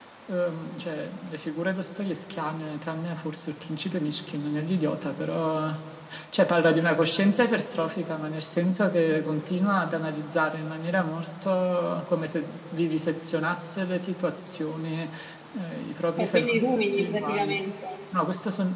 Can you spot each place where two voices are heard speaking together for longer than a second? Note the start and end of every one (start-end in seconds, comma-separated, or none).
16.2-17.6